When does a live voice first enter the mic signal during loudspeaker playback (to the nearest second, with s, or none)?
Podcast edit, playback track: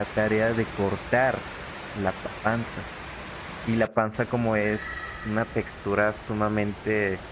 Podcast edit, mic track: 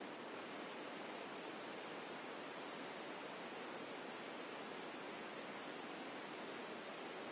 none